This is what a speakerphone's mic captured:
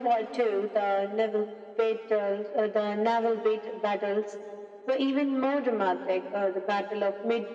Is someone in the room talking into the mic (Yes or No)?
No